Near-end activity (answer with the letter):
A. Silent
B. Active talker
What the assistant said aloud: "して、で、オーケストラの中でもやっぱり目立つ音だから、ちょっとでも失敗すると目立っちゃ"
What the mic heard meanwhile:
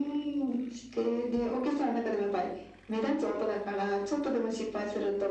A